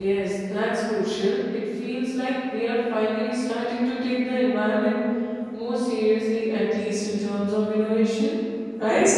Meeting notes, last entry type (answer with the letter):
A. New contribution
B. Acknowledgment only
A